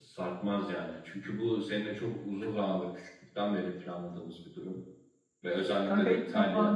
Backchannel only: No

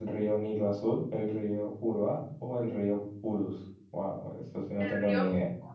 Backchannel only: No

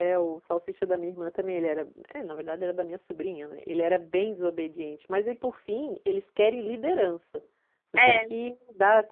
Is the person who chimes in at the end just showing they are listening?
Yes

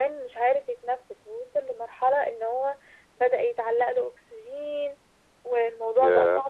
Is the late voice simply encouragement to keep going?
Yes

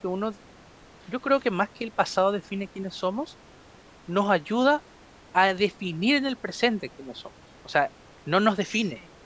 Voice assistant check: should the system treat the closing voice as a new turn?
No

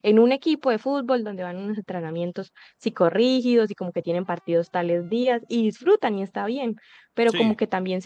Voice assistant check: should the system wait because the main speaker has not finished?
Yes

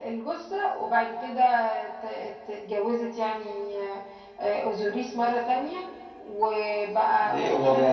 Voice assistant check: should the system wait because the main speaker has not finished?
No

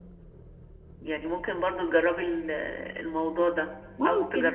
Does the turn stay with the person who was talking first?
Yes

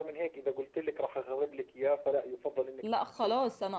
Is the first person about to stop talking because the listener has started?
Yes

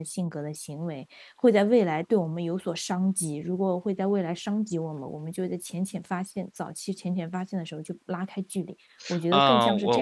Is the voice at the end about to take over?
Yes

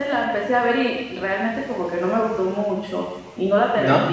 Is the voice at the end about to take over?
No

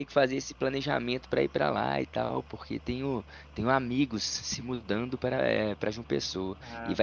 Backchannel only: Yes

